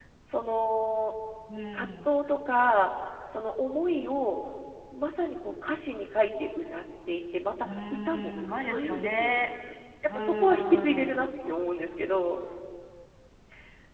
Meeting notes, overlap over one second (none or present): present